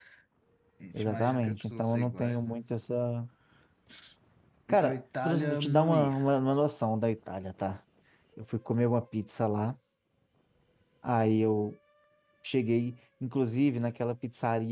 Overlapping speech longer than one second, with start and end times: 0.9-2.6, 4.7-6.2

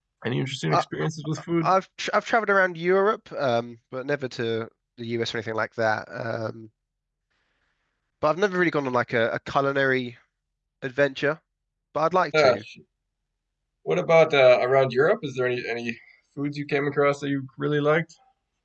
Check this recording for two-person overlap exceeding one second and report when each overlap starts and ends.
none

